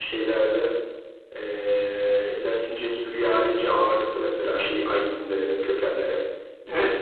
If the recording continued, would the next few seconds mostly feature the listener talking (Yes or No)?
Yes